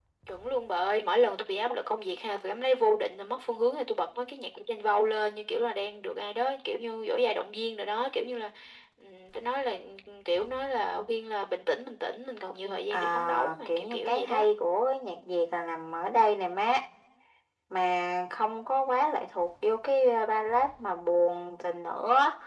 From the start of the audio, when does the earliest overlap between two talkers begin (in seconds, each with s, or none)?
12.9 s